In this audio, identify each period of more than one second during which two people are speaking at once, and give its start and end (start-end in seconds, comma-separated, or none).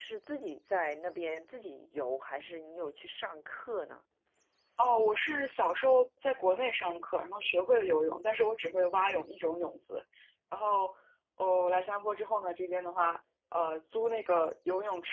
none